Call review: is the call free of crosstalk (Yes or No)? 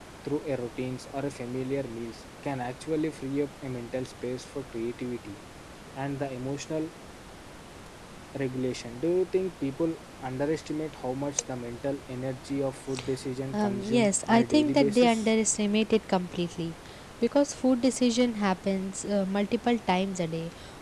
No